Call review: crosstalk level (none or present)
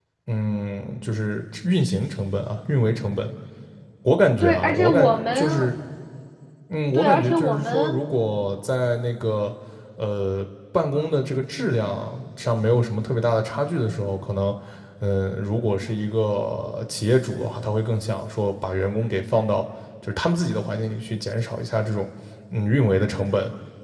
present